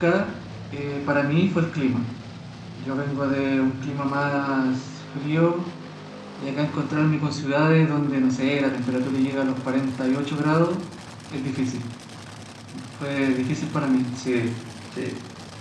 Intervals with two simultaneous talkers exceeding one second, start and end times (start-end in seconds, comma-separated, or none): none